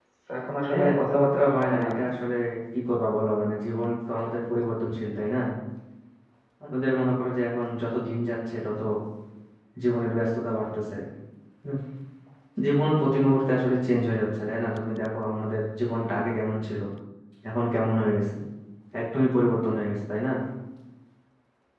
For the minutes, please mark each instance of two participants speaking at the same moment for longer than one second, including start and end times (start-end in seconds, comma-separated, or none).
0.7-2.0